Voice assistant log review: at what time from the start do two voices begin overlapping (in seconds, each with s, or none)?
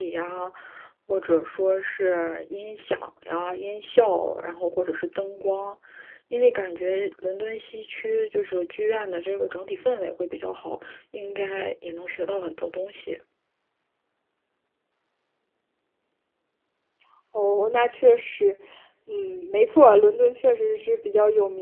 none